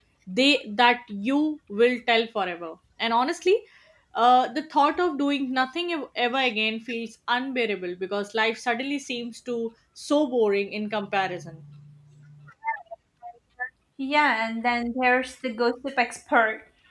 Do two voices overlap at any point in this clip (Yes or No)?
No